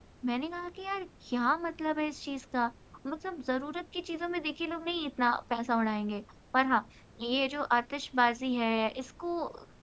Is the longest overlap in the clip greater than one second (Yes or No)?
No